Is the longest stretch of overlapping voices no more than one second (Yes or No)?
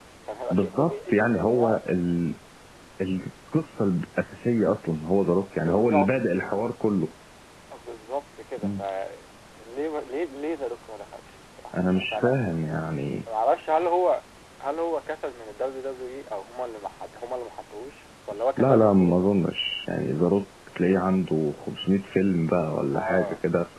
No